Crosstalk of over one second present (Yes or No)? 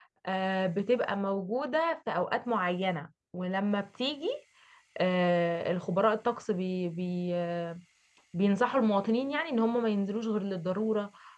No